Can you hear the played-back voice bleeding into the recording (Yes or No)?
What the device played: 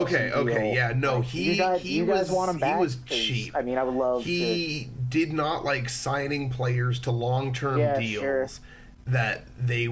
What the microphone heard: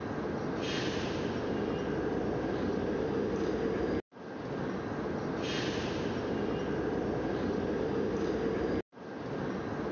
No